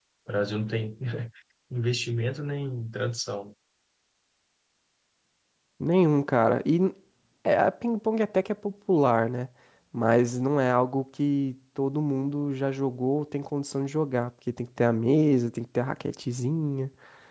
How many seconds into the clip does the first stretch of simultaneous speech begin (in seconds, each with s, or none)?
none